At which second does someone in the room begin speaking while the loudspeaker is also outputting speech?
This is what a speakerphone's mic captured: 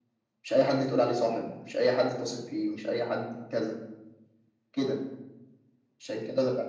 none

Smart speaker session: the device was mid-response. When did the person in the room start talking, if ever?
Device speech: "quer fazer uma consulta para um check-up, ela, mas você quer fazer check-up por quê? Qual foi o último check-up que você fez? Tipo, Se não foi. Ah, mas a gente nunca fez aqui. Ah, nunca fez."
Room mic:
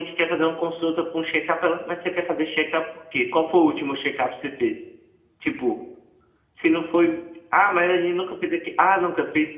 none

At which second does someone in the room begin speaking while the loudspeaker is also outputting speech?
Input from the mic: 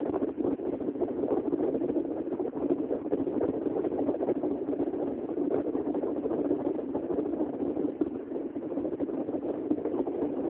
none

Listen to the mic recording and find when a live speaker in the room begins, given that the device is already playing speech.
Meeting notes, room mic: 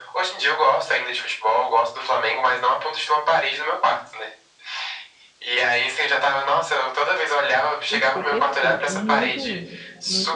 7.9 s

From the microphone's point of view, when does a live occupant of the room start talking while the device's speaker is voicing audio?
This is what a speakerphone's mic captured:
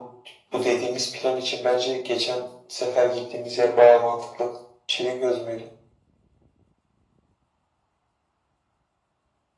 none

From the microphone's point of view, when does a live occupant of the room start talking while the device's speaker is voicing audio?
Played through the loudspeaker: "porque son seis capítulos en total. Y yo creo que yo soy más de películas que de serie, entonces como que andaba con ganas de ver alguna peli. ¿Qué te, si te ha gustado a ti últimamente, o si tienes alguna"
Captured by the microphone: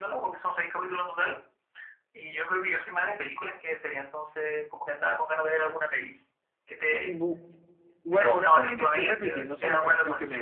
7.0 s

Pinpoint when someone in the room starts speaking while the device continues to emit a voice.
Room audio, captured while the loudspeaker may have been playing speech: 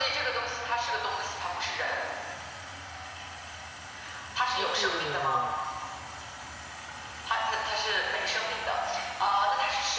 4.5 s

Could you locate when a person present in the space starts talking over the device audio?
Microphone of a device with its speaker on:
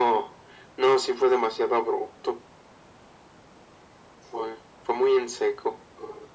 none

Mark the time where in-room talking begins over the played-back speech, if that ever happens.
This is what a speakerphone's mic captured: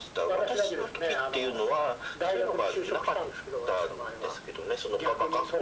none

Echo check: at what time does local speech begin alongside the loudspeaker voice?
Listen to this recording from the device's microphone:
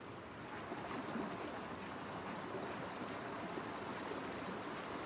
none

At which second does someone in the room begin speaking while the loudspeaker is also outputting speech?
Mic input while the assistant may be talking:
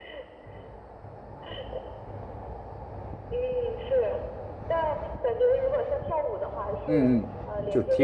6.9 s

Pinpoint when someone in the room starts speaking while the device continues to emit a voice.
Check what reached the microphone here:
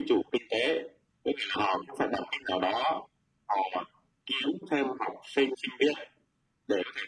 none

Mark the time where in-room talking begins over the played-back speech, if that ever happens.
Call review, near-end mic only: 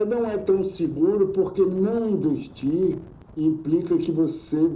none

